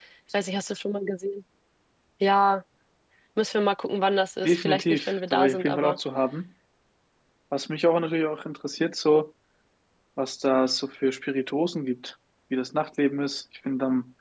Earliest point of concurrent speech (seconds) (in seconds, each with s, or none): 4.4 s